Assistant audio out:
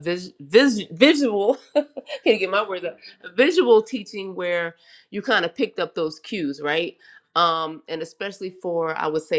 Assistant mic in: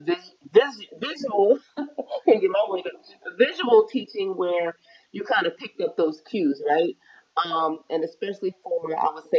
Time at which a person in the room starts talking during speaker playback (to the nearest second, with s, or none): none